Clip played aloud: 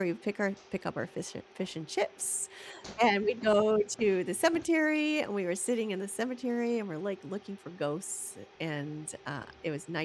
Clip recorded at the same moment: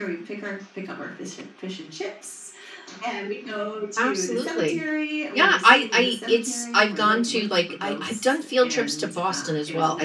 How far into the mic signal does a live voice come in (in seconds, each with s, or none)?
4.0 s